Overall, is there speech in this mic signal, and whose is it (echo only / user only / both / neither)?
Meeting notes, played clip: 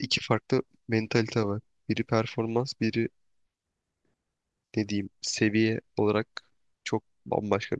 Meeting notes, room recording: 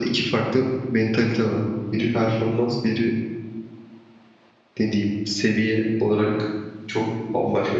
echo only